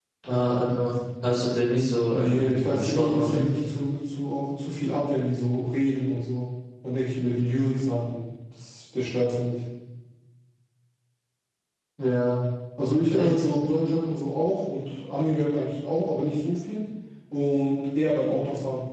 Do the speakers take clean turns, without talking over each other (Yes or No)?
No